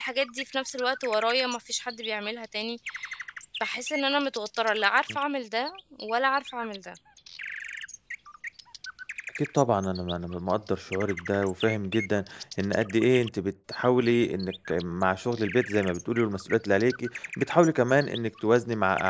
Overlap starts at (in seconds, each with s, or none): none